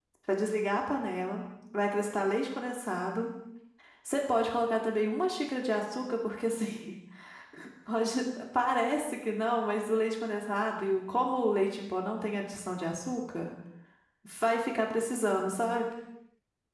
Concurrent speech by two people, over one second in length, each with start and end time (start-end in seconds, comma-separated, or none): none